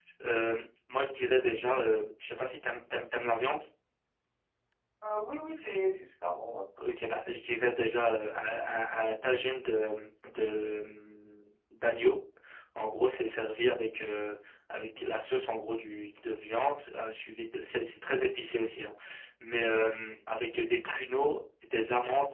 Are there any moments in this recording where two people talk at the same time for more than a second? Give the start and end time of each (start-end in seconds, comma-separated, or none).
none